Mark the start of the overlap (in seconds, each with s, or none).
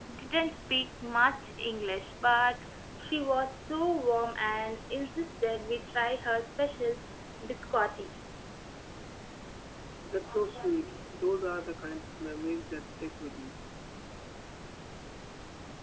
none